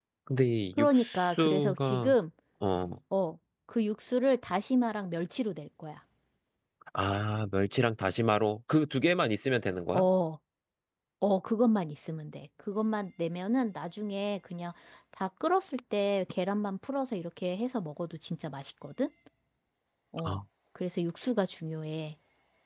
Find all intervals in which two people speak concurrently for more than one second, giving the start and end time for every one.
0.8-2.1

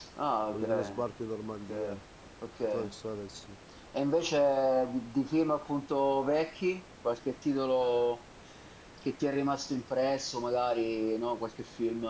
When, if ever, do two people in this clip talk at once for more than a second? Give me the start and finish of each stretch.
none

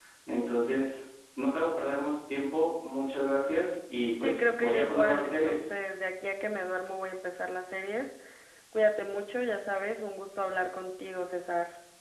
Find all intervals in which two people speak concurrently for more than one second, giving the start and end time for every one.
4.2-5.6

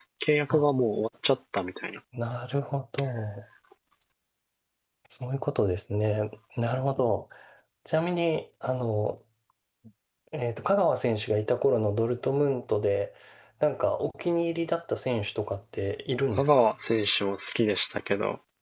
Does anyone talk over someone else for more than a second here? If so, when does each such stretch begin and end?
none

